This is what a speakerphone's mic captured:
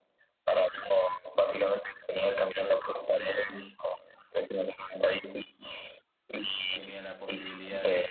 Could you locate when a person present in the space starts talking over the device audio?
6.7 s

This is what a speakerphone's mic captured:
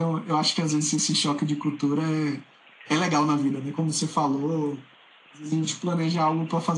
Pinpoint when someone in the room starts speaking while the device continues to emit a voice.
none

